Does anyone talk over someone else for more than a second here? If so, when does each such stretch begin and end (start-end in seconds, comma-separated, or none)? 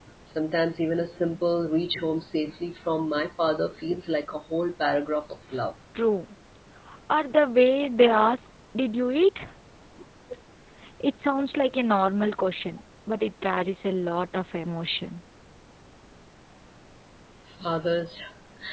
none